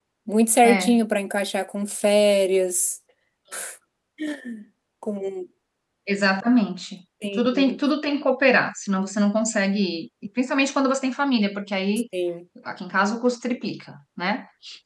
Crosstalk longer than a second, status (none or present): none